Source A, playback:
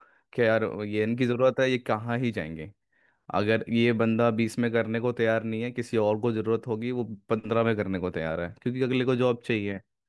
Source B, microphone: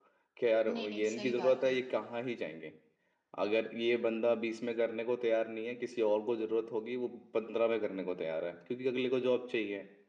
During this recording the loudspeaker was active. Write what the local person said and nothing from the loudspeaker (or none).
नहीं नहीं सही बात है